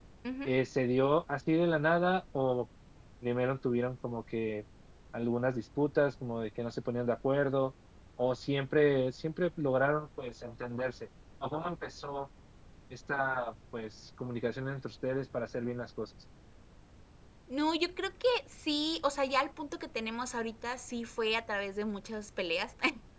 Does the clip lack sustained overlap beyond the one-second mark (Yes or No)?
Yes